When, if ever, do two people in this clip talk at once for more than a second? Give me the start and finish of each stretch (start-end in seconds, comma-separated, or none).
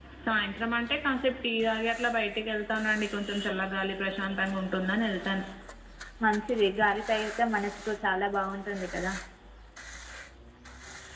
none